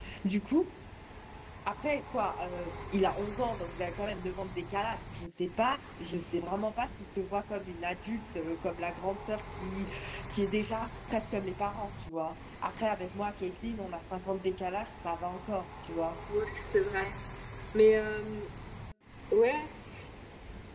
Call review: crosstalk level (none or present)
none